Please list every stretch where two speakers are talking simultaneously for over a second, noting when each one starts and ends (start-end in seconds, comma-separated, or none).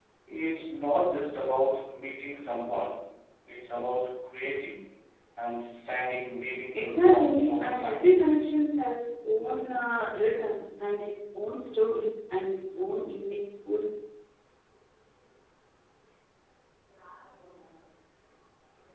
6.7-8.1